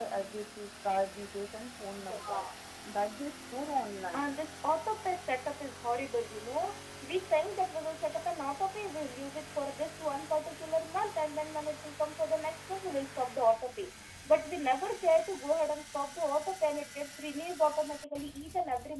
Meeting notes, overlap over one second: none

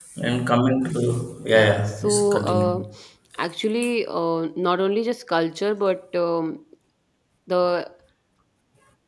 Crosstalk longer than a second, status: present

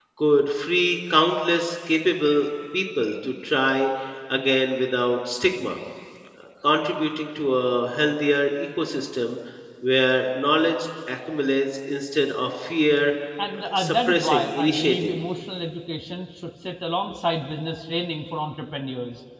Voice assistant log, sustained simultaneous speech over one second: present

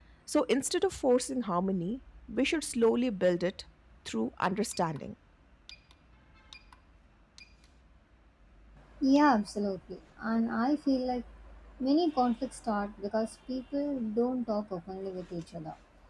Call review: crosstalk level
none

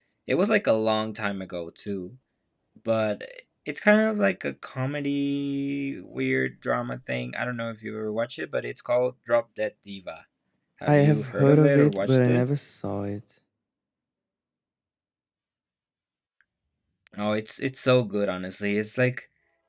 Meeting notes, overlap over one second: present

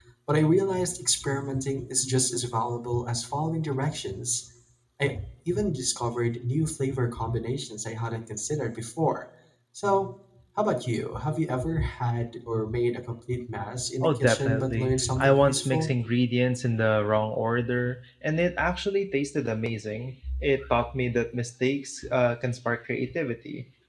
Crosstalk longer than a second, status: present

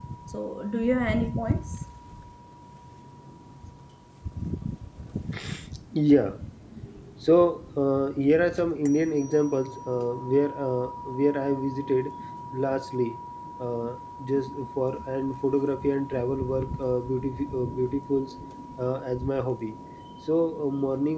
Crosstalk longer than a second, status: none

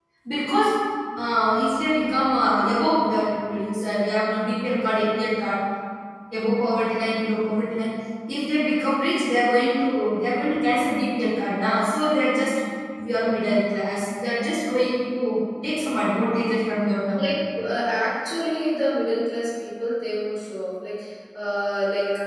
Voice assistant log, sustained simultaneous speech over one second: none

